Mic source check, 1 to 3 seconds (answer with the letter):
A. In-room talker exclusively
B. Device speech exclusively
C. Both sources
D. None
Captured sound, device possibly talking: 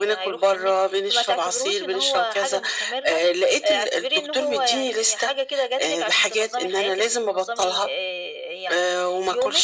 B